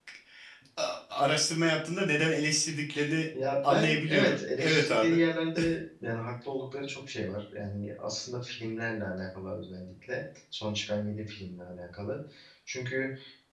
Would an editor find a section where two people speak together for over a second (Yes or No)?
Yes